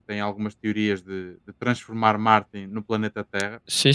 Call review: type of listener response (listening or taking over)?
listening